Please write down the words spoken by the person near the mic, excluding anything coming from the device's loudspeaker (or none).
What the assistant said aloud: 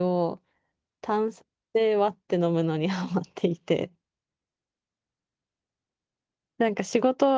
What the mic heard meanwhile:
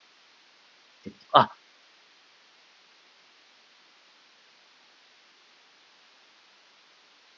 えっとあ、